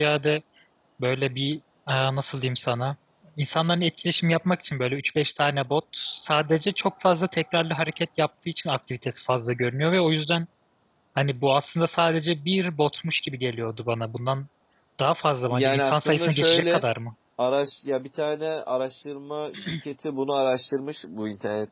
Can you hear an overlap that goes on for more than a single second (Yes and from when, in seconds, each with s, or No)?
Yes, from 15.5 s